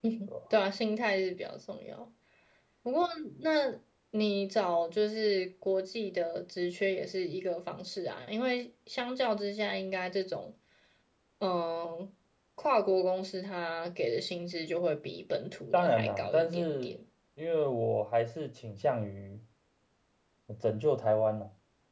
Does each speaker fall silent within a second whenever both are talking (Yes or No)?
No